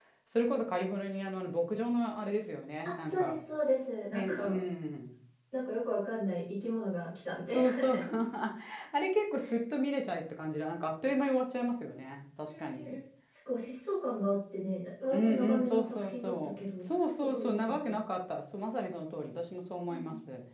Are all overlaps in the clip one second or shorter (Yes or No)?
No